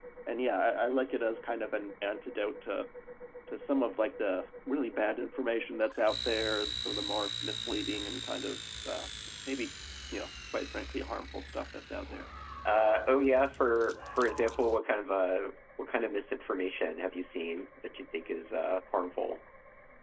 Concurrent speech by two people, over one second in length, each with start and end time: none

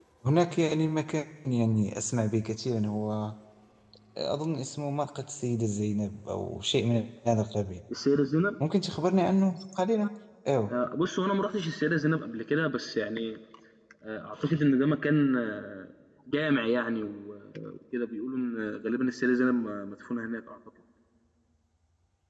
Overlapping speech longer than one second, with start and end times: none

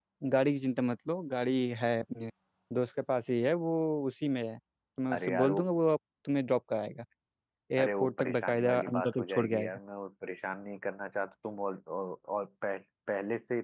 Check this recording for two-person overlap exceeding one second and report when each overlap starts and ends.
7.8-9.8

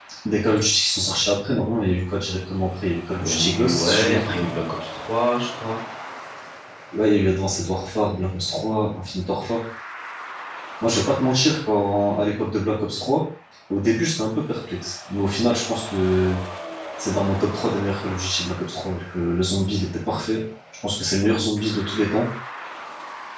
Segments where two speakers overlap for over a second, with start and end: 3.2-4.5

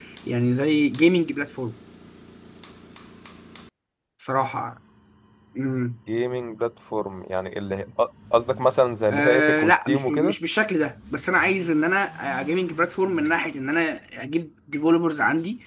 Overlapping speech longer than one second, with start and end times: 9.1-10.3

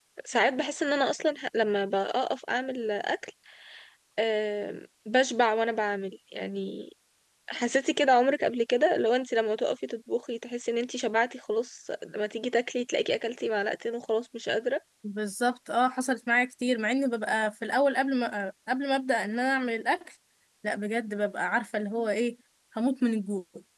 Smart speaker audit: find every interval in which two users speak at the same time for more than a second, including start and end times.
none

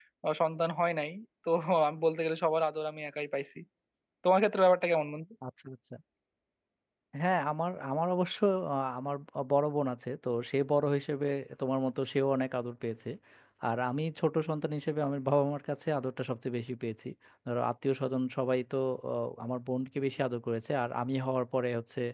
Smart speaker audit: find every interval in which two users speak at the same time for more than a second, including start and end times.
none

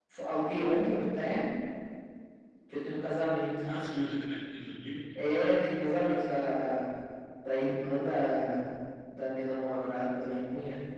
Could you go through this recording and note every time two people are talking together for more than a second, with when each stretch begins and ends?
none

